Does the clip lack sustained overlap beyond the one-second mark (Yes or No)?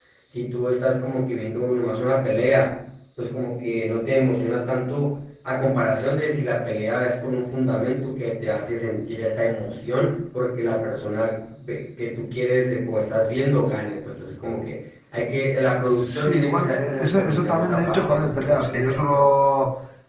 No